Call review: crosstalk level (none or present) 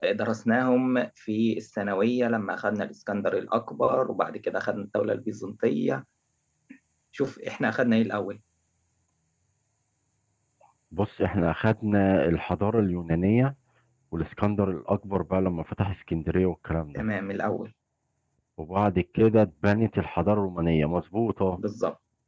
none